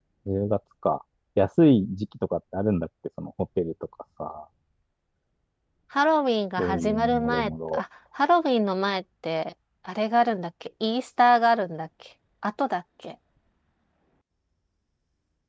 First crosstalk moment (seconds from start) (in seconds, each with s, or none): 6.6 s